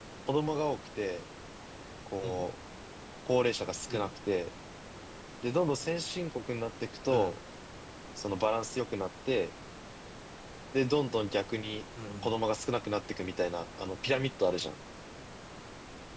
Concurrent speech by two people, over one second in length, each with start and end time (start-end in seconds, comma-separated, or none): none